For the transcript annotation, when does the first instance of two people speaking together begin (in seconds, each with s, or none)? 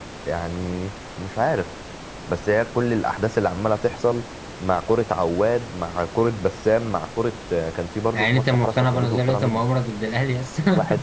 8.1 s